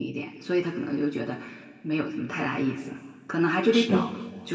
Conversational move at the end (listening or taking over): listening